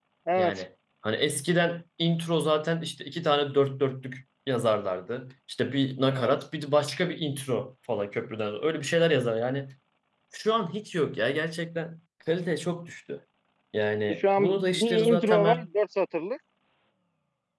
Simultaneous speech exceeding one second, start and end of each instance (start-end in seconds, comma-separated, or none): 14.1-15.7